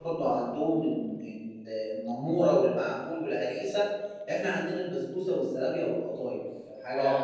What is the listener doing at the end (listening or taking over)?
taking over